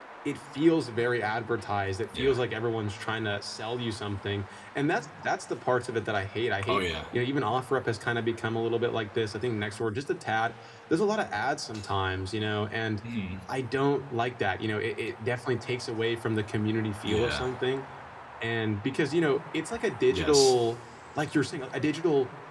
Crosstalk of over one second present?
No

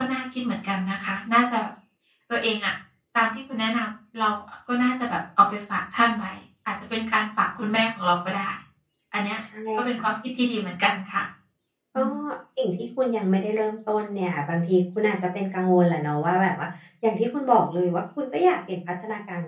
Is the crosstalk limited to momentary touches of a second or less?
Yes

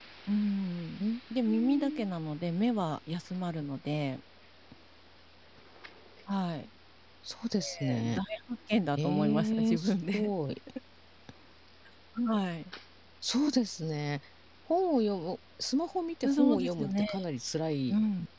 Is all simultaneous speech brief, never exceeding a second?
No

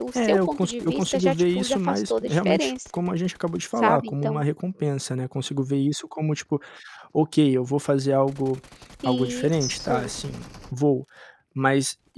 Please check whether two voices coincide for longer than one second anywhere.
Yes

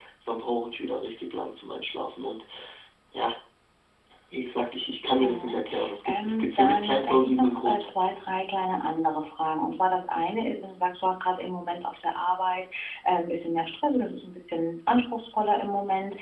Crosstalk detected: Yes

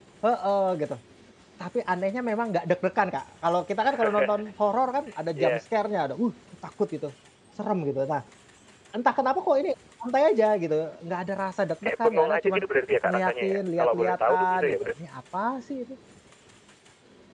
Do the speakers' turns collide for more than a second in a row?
Yes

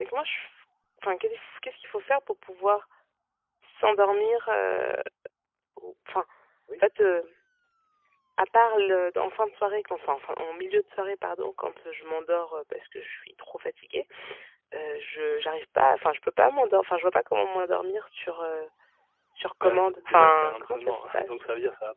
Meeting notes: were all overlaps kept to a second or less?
No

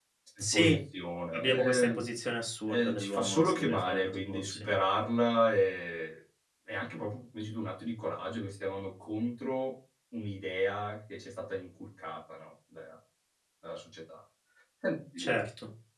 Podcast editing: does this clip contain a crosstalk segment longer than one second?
Yes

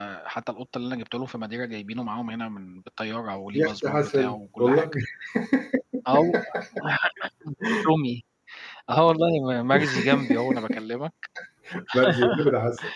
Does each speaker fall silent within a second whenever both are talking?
No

